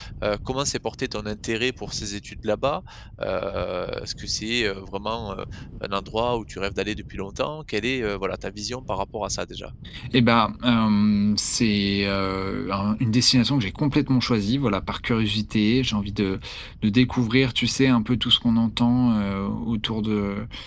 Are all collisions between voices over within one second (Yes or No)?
Yes